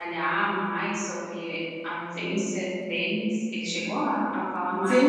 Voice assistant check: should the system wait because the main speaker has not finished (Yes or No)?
No